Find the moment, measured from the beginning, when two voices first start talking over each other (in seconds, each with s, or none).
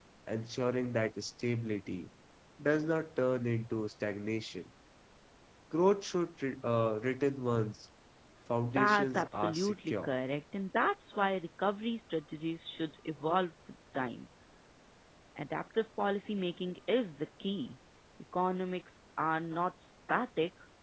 8.8 s